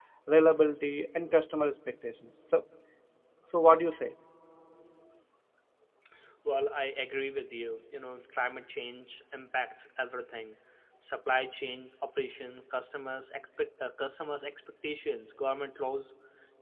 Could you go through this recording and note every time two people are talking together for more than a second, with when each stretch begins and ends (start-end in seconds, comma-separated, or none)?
none